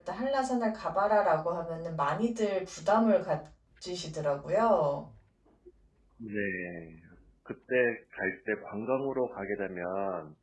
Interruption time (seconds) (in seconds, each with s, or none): none